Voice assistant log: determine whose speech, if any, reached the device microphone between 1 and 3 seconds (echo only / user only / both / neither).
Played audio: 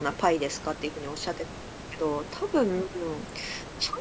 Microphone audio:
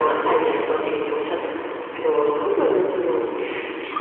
echo only